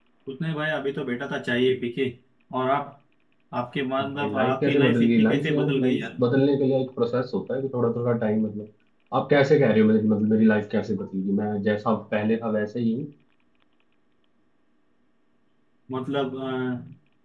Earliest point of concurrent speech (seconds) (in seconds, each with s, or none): 4.0 s